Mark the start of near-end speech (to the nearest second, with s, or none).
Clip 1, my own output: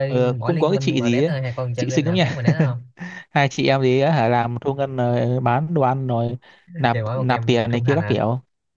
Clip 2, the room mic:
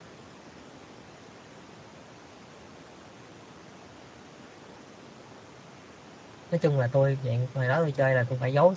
7 s